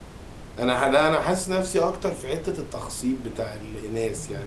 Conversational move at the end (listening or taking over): listening